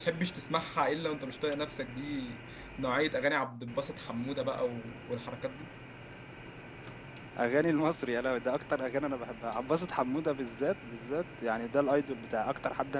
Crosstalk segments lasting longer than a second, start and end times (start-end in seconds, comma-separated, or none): none